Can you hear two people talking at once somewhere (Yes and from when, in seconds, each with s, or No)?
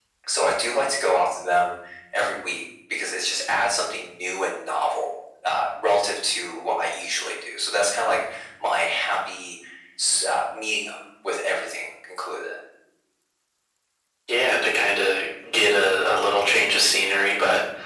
No